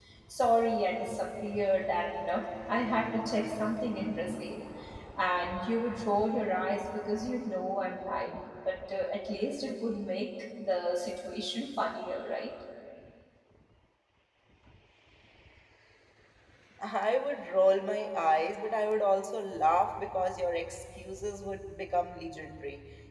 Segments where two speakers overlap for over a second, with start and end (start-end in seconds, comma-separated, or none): none